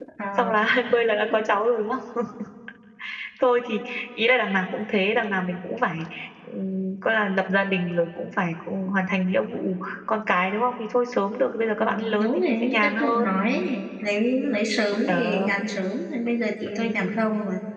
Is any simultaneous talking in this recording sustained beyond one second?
Yes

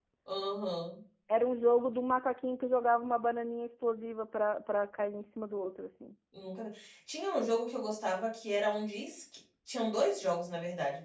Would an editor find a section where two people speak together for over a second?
No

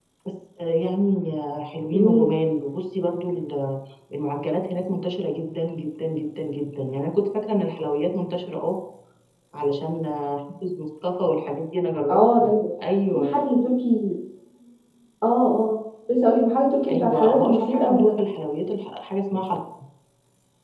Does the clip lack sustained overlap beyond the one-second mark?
No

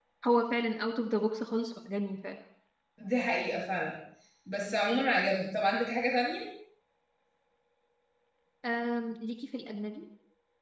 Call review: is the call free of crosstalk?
Yes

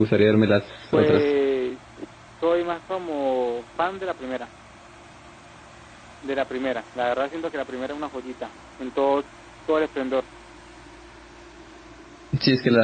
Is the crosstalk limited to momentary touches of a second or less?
Yes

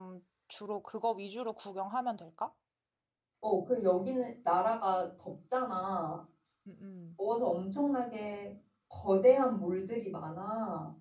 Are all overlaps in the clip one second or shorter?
Yes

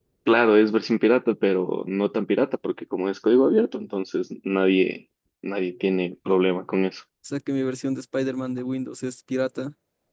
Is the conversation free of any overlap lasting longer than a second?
Yes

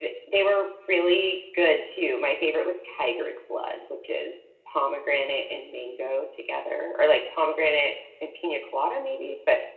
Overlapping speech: No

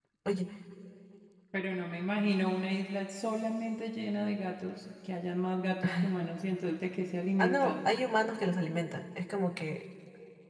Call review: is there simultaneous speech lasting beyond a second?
No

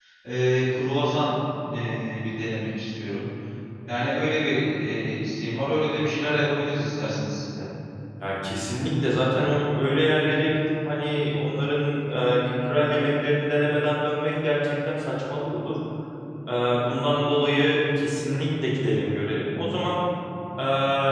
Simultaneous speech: No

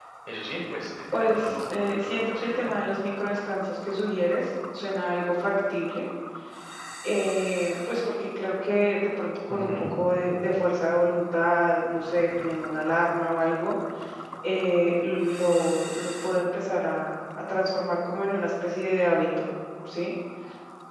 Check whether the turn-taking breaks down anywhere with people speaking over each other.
Yes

